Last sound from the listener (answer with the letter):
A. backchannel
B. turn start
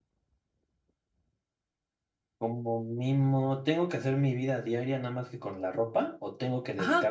B